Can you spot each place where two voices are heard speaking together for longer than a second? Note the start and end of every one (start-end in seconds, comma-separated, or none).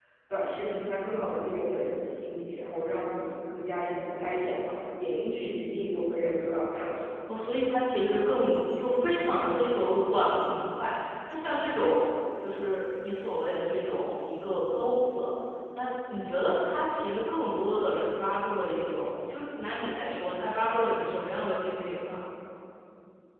none